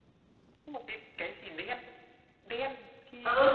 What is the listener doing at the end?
taking over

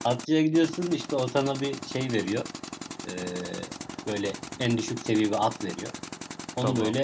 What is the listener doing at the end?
listening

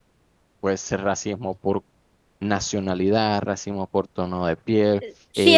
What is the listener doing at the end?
taking over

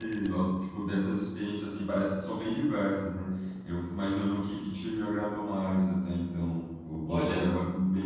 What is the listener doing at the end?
listening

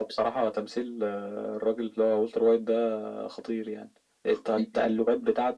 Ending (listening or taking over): listening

